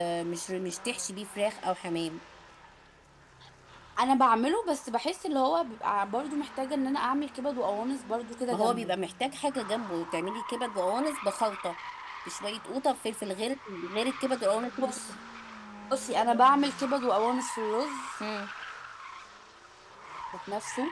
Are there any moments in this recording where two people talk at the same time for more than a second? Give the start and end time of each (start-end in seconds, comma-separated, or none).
none